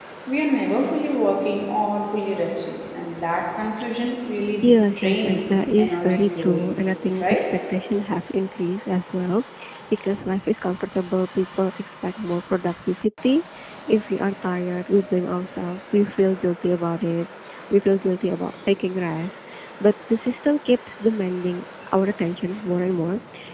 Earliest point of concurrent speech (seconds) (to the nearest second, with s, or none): 5 s